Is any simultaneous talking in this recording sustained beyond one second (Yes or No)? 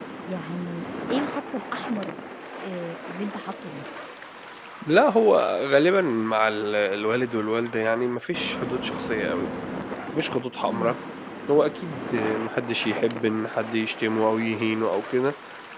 No